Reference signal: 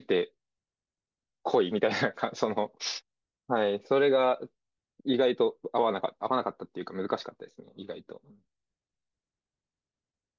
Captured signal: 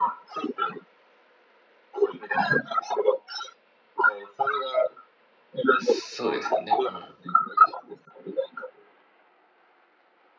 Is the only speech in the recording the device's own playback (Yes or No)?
No